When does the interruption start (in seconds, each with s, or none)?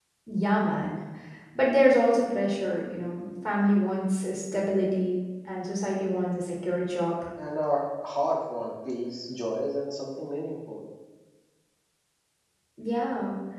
none